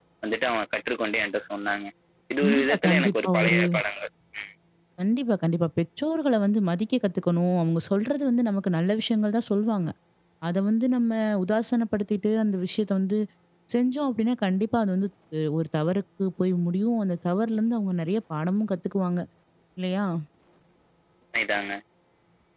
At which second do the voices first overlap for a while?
2 s

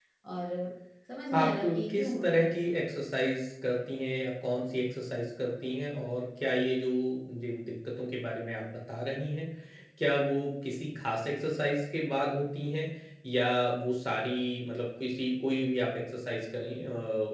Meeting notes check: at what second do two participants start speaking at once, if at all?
1 s

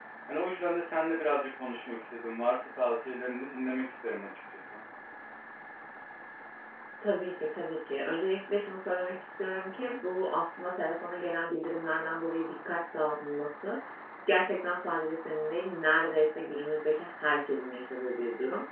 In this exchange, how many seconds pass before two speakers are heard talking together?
none

